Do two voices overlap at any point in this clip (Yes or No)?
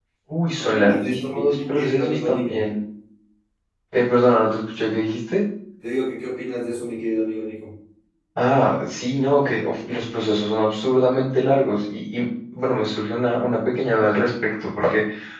Yes